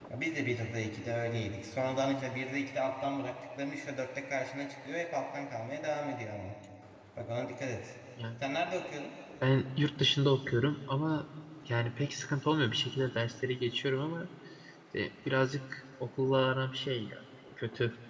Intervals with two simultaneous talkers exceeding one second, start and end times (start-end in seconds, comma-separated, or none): none